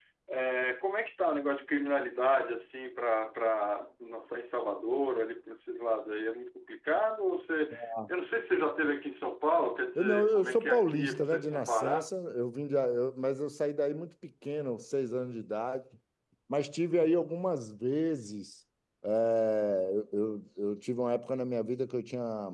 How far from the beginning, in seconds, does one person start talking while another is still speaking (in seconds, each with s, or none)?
9.9 s